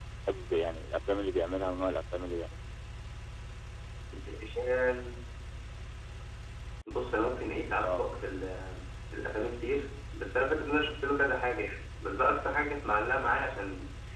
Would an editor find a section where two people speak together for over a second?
No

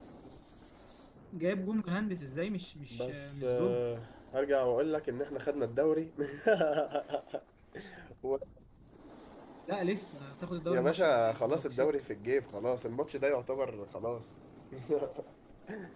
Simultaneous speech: Yes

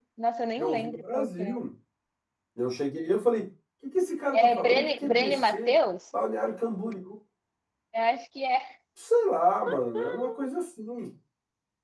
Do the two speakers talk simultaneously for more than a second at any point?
Yes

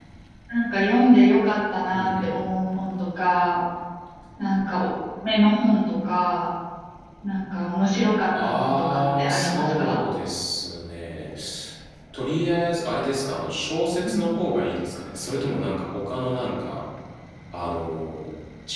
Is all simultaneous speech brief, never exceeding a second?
No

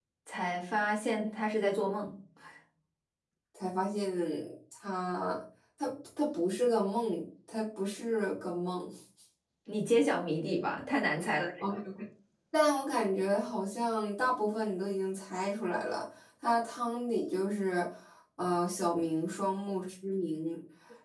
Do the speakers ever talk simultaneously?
No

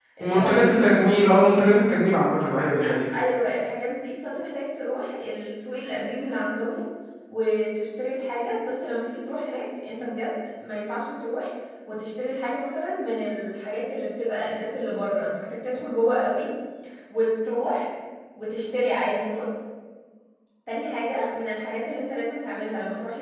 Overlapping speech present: Yes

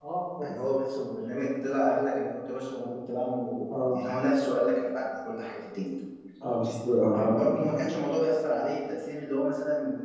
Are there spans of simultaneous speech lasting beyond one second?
No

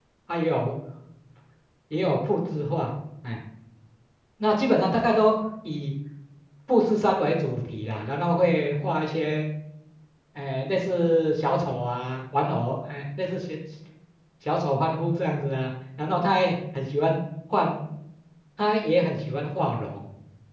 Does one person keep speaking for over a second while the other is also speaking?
No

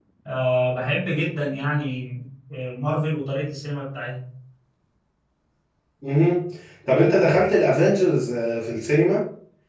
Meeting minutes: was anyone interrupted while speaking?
No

